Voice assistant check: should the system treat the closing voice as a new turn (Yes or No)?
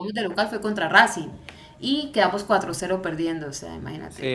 Yes